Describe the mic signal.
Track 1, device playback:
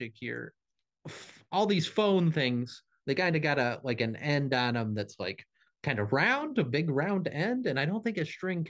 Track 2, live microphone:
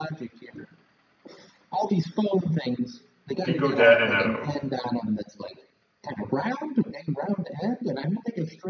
both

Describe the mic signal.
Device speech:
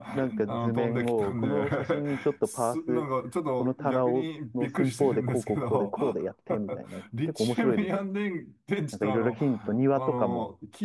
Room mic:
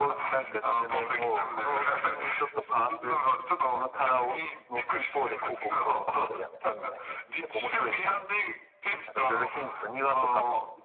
echo only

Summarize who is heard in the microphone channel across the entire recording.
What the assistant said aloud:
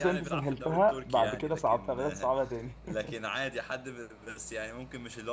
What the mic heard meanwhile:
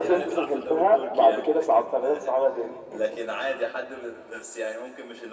echo only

